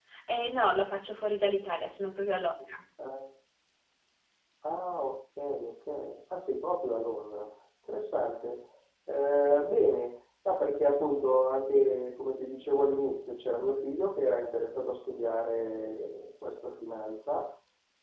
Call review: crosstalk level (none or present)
none